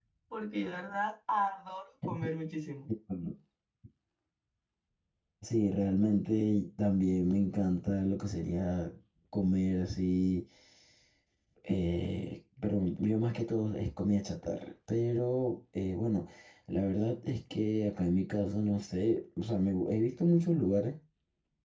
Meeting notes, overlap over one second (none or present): none